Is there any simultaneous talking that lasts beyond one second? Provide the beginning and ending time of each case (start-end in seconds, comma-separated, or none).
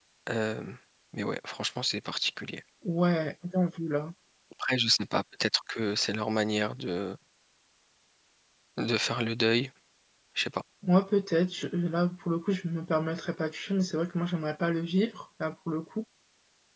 none